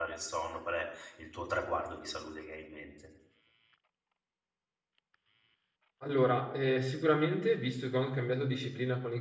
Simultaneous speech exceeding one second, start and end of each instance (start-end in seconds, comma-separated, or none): none